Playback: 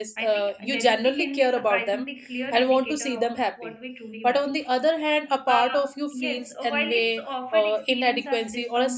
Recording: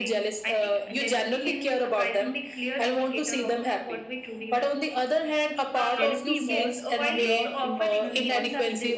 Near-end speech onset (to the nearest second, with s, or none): 6 s